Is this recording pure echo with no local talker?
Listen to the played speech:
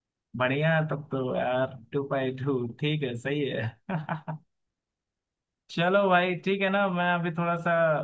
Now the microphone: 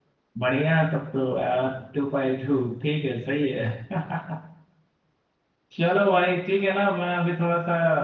Yes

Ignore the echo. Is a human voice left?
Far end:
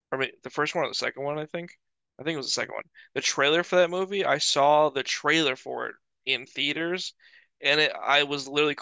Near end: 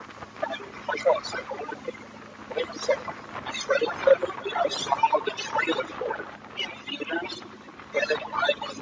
No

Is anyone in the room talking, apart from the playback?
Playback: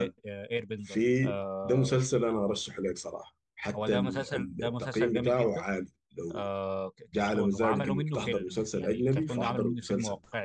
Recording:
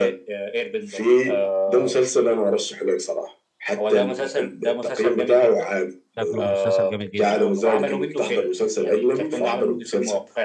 Yes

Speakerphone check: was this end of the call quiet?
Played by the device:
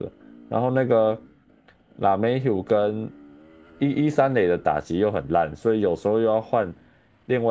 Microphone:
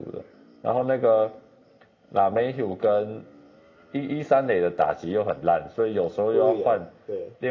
No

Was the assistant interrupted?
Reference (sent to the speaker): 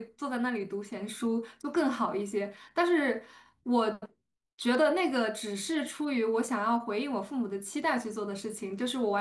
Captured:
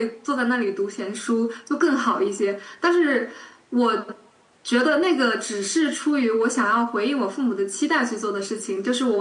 No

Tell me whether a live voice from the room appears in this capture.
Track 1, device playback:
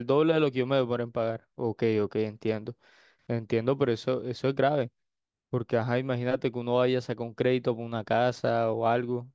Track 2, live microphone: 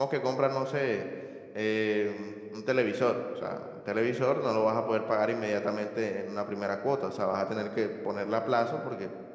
Yes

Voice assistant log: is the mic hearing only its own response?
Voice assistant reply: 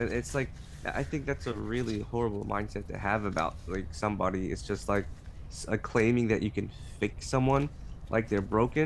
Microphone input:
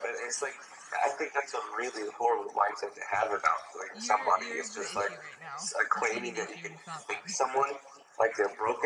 No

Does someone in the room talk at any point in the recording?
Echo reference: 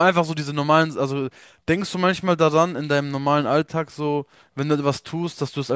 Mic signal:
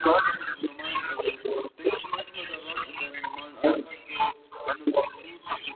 No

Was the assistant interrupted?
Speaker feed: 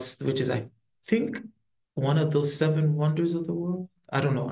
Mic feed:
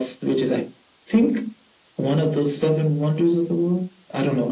No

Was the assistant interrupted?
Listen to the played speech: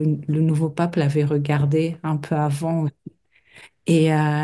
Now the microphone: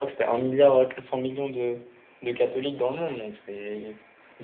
Yes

